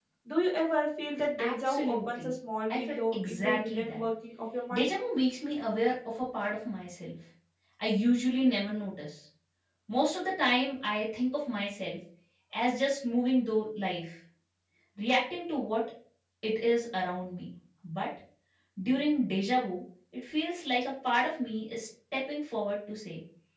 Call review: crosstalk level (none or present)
present